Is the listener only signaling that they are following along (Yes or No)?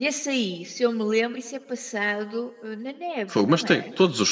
No